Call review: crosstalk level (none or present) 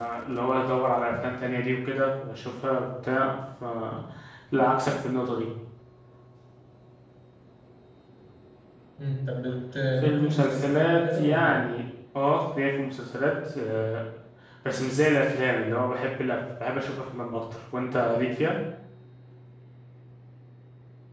present